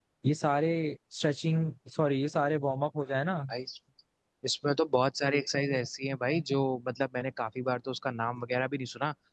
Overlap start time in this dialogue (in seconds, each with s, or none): none